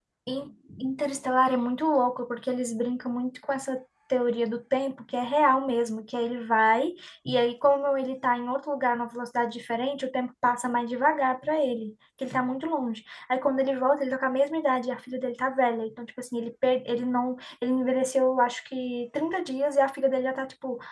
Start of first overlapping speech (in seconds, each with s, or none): none